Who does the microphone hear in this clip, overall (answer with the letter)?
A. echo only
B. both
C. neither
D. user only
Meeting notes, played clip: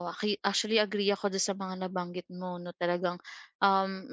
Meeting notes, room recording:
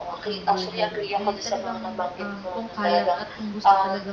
B